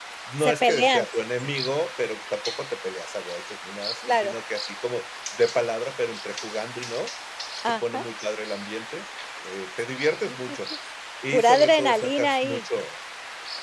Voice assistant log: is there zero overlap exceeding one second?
No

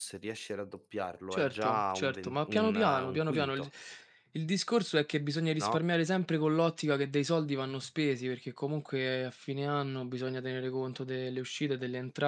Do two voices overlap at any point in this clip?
Yes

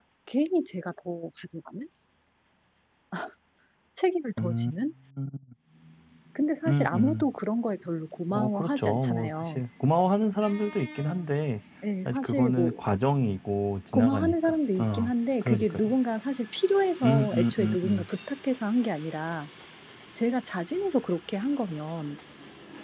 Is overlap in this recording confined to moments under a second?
No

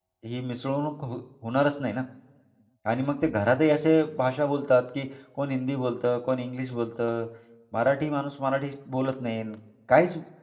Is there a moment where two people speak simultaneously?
No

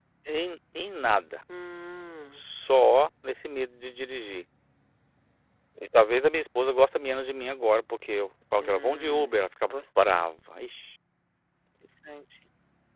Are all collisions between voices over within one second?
No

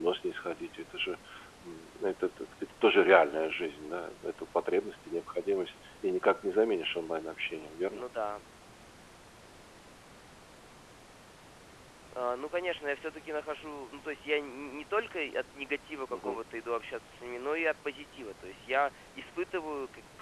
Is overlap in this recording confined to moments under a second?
Yes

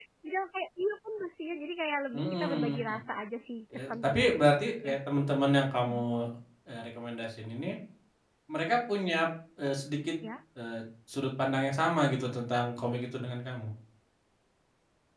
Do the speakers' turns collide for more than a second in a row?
Yes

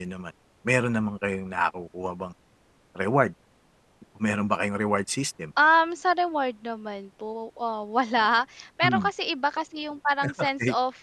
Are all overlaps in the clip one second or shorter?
Yes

